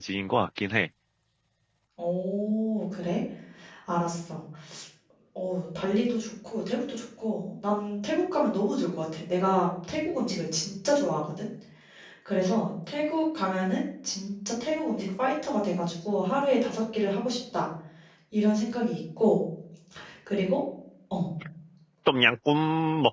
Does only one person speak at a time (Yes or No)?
Yes